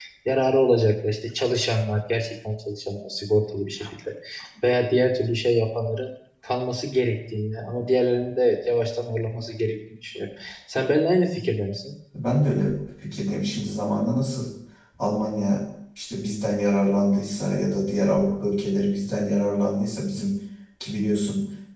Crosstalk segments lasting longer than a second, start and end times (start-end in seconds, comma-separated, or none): none